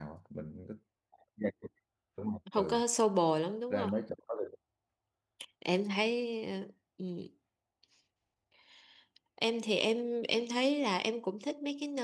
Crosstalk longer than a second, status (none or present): none